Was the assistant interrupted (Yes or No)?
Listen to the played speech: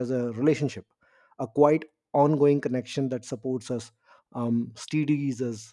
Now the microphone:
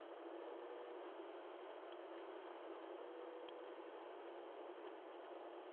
No